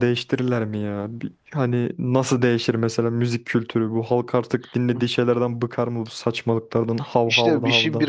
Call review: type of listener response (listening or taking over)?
taking over